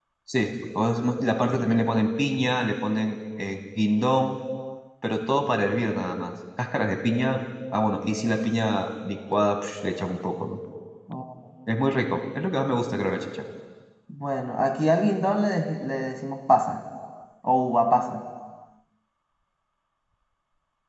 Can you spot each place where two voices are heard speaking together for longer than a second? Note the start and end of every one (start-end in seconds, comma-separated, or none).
none